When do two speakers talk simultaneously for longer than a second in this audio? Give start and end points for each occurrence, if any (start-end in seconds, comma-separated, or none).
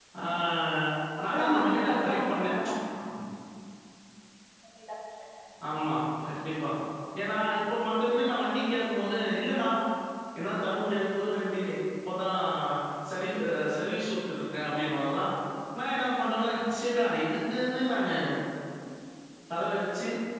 1.2-2.5